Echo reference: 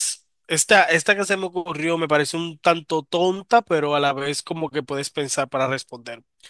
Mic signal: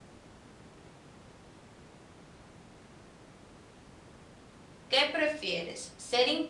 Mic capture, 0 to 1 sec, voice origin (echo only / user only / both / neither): neither